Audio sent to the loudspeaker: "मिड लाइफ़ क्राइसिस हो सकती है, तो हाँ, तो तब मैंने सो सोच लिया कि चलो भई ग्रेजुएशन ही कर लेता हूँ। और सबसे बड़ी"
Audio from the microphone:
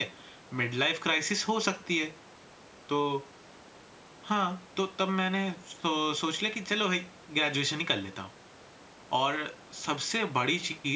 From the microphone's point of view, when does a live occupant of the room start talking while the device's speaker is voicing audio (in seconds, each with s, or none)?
none